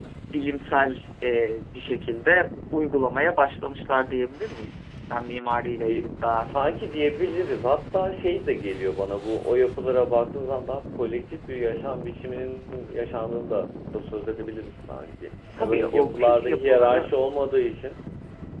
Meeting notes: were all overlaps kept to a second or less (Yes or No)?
No